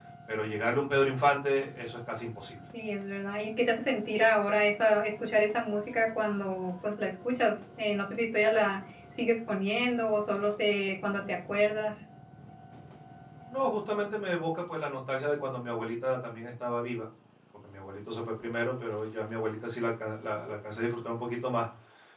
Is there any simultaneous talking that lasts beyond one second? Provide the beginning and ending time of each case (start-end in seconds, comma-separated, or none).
none